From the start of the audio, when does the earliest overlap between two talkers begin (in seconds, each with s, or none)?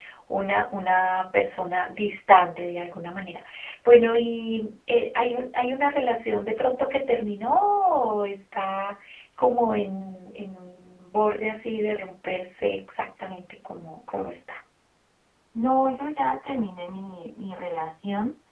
none